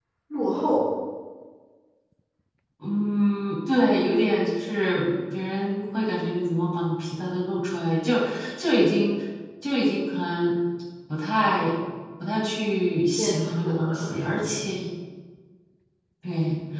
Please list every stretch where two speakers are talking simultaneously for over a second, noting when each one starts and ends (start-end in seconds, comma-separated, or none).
13.2-14.4